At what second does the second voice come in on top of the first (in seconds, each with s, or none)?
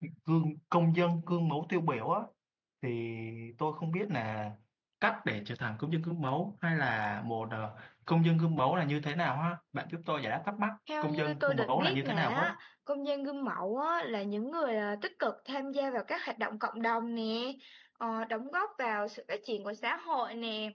10.9 s